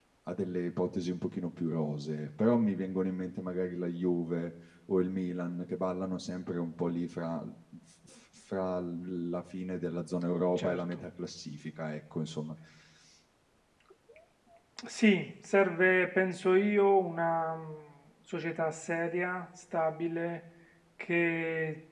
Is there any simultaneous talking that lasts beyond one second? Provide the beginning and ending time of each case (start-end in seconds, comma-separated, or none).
none